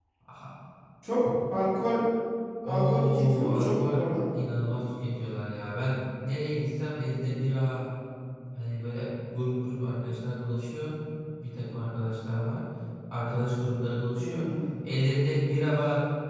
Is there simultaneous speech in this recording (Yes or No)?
Yes